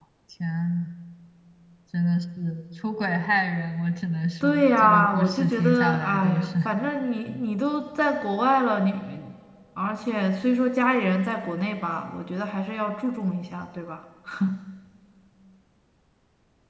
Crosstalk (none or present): present